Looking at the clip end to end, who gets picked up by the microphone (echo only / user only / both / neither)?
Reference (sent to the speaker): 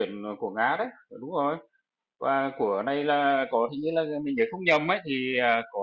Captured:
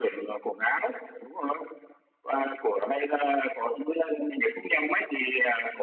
echo only